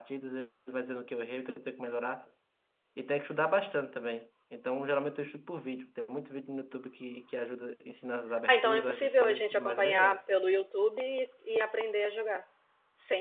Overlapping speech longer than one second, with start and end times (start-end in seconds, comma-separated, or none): 8.5-10.2